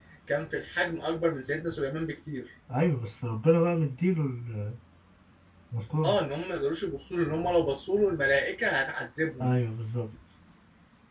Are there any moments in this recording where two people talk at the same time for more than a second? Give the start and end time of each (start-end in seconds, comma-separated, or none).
none